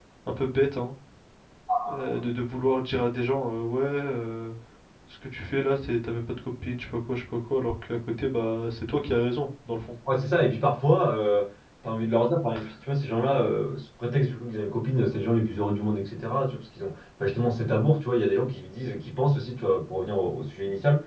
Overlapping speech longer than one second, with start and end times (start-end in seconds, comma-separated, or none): none